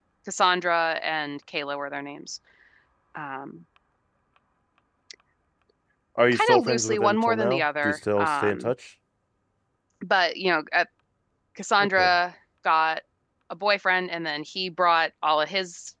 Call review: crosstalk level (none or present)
present